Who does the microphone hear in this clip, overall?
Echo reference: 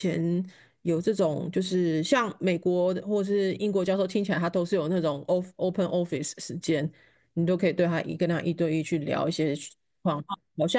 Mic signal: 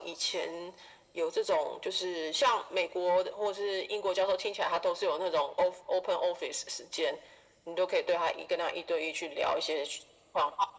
echo only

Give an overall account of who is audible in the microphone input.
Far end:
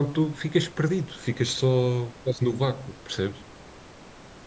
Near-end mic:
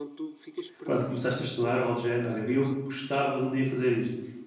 both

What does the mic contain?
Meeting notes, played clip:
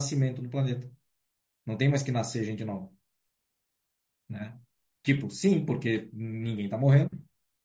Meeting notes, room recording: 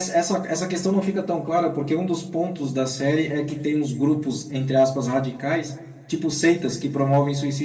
user only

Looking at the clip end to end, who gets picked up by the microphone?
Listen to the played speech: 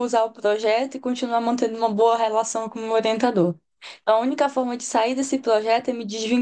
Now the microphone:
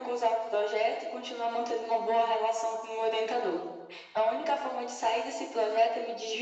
echo only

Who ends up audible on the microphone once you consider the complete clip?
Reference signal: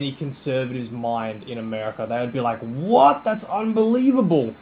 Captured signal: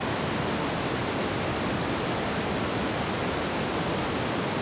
neither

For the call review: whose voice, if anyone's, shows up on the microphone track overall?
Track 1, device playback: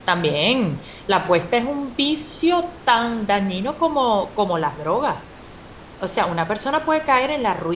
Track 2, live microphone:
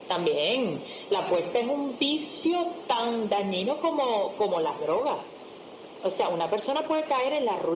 echo only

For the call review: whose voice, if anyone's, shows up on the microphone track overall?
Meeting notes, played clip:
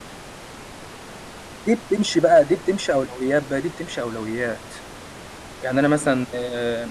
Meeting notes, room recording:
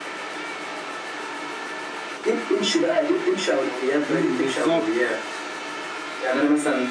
both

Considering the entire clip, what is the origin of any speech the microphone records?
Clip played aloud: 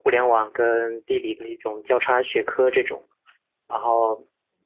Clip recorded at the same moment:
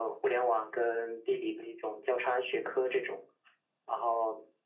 echo only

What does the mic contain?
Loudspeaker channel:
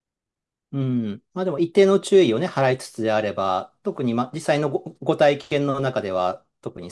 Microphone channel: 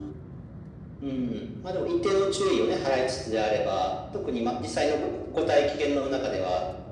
echo only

